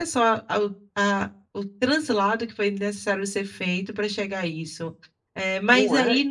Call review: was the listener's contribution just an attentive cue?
Yes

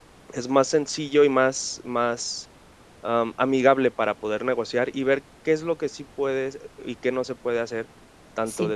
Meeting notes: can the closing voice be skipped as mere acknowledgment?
Yes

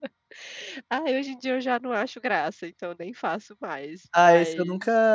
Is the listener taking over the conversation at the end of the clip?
Yes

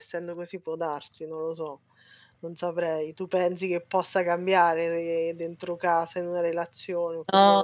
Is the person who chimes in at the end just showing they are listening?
No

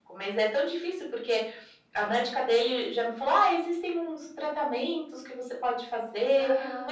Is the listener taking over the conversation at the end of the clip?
No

